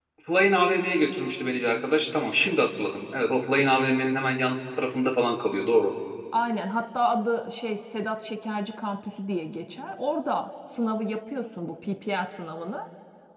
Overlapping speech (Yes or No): No